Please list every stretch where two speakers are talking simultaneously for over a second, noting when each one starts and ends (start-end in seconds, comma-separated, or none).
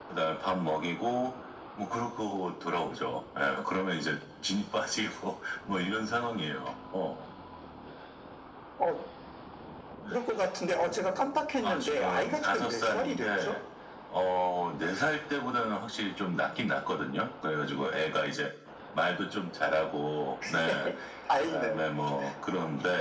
11.6-13.6